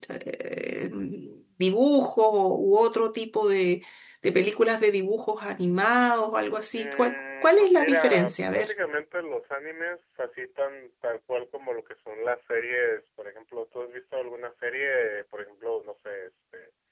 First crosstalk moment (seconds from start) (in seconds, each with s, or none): 6.7 s